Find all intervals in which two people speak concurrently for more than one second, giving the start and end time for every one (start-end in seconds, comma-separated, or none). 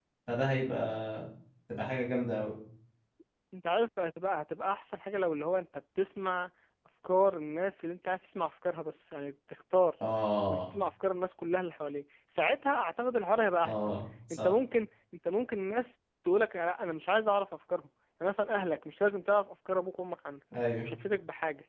none